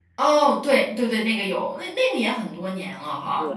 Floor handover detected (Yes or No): Yes